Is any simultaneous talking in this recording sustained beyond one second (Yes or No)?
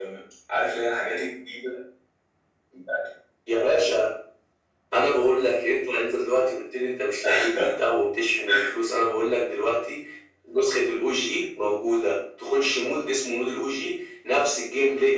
No